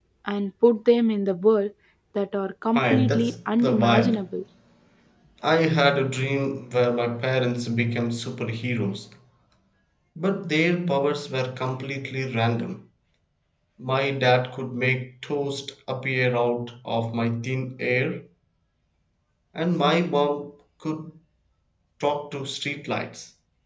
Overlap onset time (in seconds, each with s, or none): 2.8 s